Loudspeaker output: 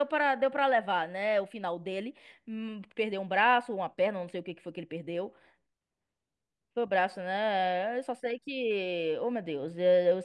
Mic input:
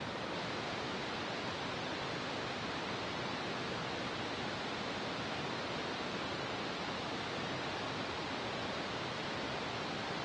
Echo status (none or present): none